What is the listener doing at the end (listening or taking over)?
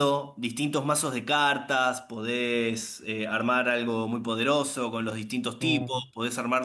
listening